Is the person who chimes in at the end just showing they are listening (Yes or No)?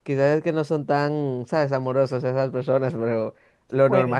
Yes